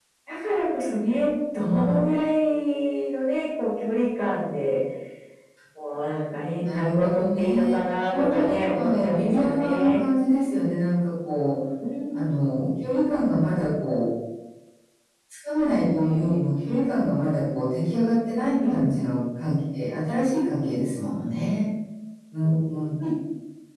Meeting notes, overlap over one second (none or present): present